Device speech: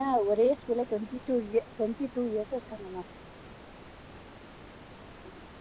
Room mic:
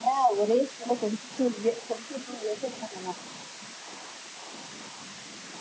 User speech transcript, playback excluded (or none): none